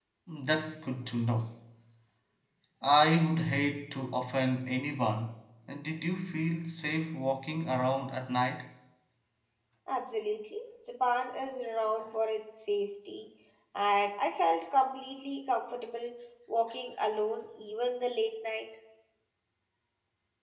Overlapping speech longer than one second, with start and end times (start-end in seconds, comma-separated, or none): none